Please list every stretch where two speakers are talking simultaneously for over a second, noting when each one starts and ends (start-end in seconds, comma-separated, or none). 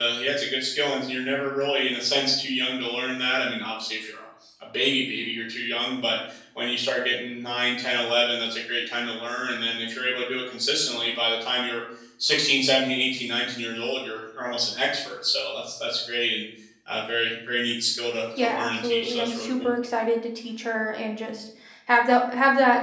18.4-19.7